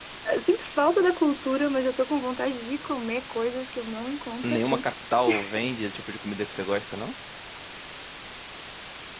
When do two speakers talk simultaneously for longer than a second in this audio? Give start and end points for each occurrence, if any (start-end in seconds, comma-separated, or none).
none